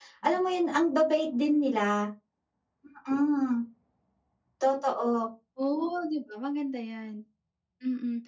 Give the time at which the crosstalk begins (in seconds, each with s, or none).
none